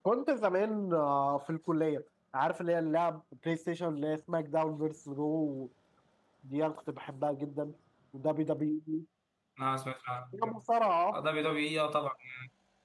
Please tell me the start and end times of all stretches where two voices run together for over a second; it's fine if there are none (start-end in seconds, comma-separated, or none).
none